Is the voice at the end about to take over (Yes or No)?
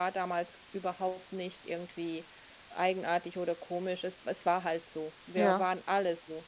No